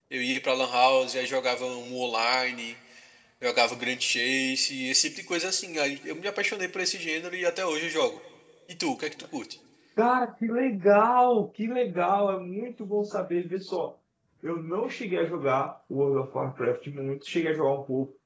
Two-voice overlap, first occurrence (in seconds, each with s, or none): none